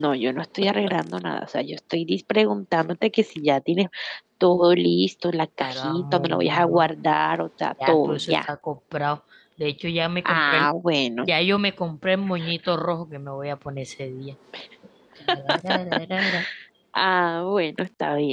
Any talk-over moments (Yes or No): Yes